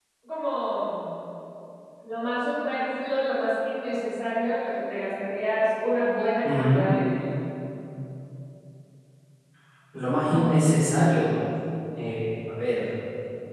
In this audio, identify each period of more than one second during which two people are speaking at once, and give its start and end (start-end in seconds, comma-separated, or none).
none